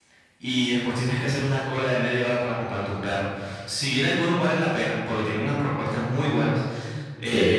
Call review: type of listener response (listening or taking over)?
listening